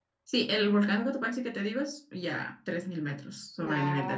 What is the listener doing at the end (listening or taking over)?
taking over